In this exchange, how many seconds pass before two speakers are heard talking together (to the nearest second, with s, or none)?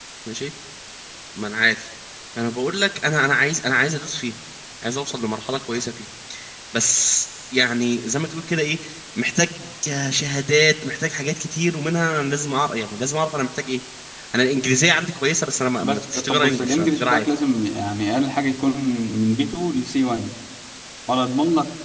16 s